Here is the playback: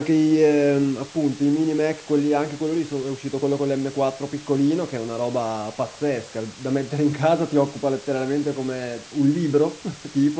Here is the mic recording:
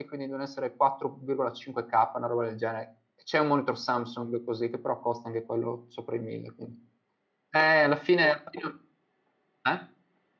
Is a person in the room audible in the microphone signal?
Yes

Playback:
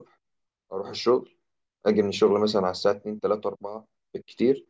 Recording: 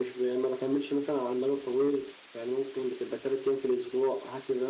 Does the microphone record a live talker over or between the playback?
Yes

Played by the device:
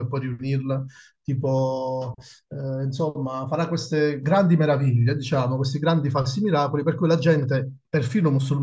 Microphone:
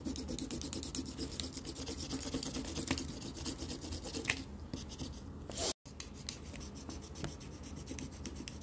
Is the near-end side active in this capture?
No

